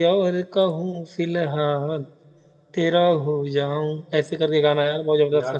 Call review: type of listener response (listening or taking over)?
taking over